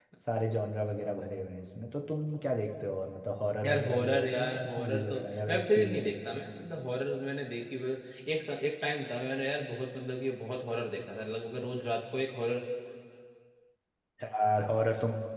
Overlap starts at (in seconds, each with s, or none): 3.6 s